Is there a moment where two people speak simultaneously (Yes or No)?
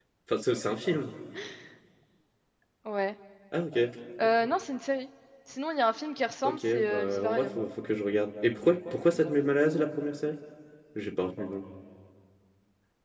Yes